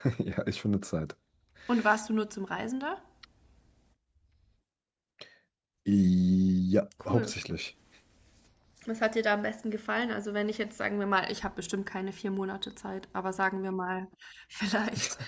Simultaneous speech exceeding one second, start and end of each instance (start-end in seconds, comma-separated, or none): none